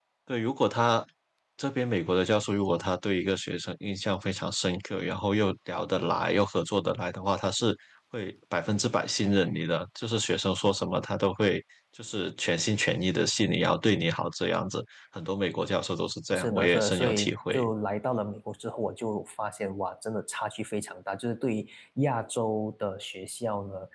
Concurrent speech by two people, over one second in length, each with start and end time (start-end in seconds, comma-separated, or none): 16.3-17.6